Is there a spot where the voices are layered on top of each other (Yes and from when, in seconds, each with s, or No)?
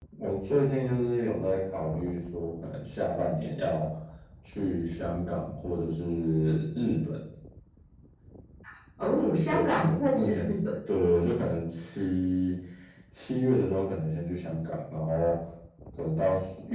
Yes, from 9.2 s